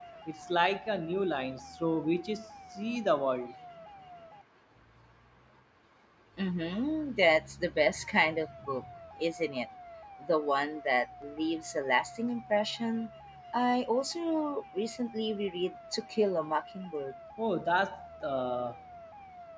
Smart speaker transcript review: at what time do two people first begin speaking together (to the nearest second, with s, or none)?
none